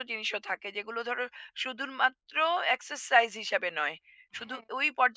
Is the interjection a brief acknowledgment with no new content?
Yes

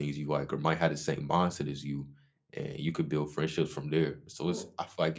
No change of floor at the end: Yes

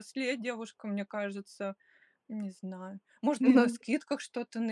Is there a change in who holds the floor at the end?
No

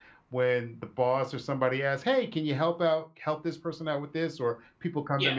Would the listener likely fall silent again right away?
Yes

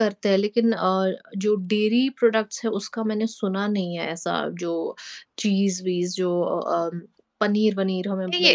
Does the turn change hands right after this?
Yes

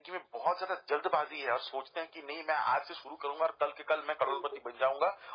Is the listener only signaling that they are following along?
Yes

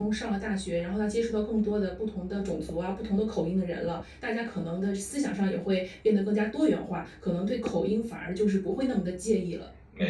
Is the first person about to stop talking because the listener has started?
Yes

